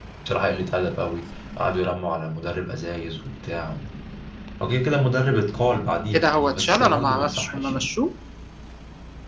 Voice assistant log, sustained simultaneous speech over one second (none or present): present